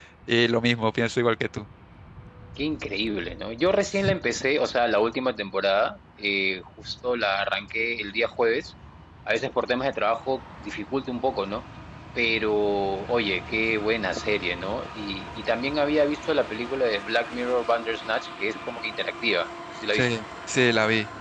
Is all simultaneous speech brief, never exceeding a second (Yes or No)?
Yes